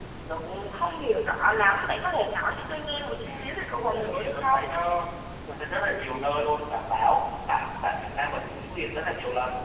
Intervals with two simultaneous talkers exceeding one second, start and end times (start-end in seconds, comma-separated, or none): 3.2-4.6